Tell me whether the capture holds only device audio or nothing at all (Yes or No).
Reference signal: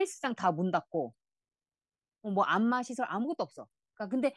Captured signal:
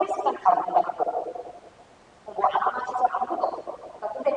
Yes